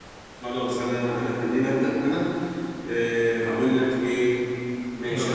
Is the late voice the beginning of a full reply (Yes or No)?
No